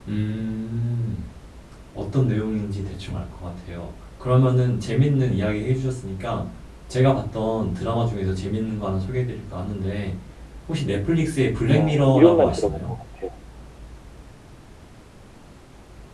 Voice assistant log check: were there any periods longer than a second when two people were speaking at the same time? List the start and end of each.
11.7-12.9

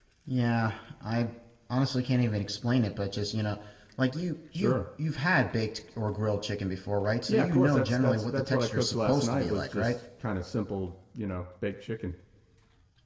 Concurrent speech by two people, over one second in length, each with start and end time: 7.3-10.0

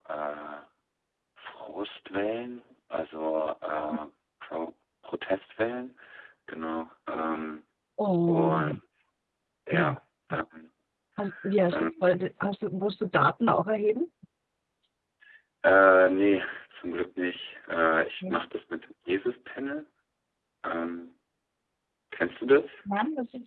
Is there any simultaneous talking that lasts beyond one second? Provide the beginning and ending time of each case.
none

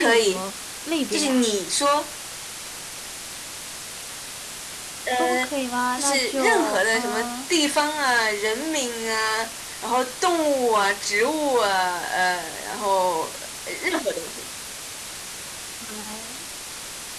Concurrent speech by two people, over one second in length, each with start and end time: 6.0-7.3

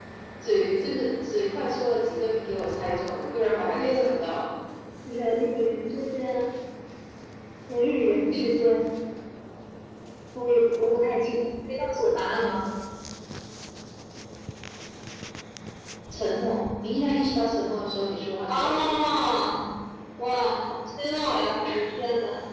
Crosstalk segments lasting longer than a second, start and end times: none

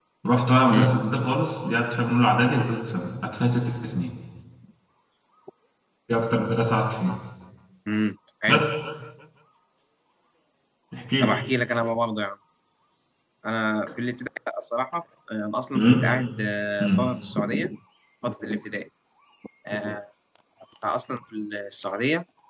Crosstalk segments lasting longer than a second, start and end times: none

